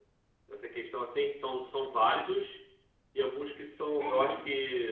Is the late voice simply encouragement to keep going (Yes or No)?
Yes